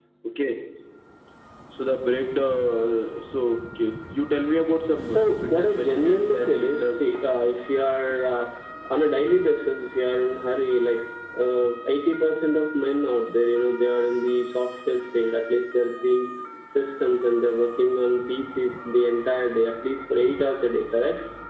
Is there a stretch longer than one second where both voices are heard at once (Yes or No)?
Yes